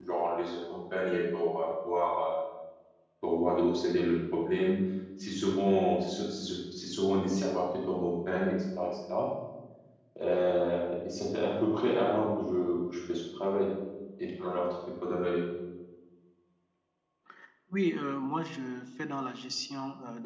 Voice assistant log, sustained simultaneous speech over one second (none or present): none